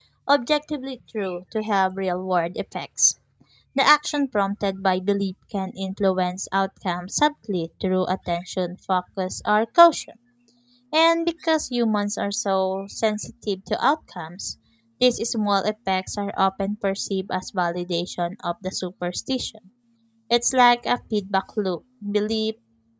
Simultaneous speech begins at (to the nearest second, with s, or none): none